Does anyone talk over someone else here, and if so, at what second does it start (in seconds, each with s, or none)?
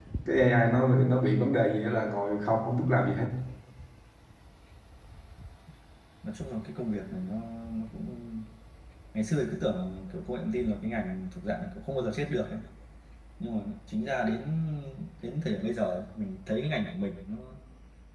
none